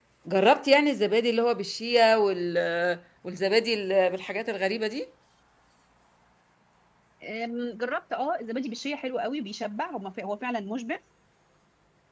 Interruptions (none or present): none